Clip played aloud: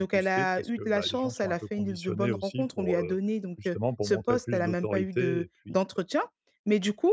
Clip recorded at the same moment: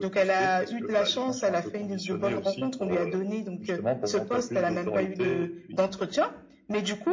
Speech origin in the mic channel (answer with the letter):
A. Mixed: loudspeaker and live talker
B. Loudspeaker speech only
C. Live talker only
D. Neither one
B